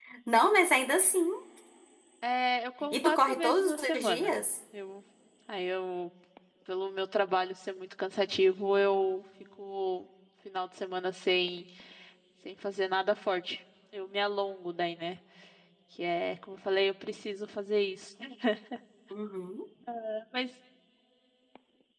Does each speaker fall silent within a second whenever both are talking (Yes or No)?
No